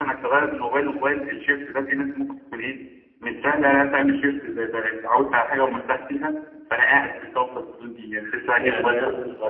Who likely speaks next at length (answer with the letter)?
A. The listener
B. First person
A